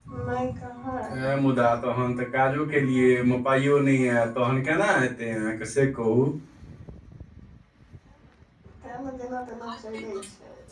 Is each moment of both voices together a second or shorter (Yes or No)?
Yes